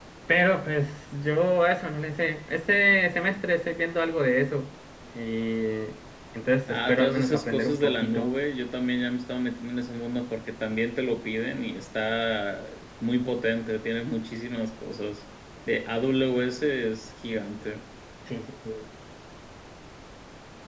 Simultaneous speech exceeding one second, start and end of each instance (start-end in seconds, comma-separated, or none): 6.7-8.3